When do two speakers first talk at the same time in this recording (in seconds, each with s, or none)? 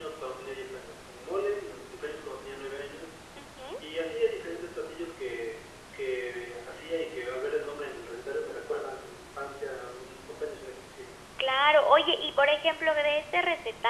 none